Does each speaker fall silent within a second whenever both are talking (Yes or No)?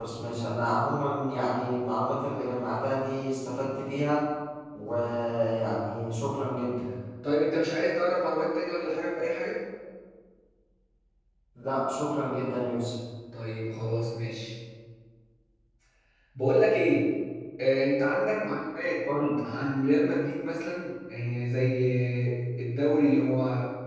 Yes